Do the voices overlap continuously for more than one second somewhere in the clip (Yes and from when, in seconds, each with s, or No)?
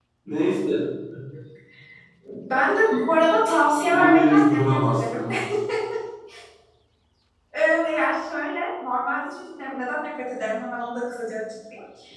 Yes, from 3.9 s